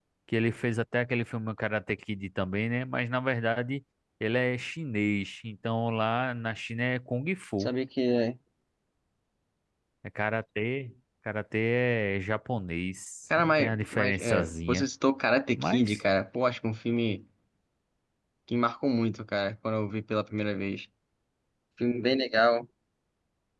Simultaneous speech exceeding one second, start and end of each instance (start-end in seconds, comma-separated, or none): 13.4-14.8